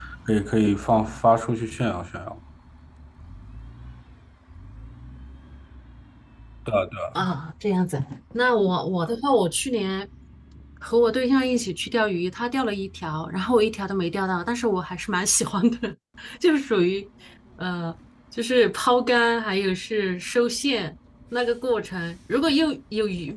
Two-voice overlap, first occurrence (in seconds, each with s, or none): none